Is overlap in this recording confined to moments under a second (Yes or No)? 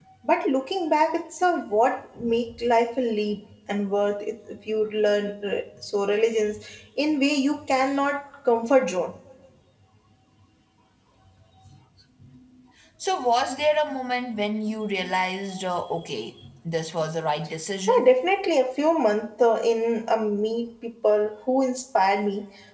Yes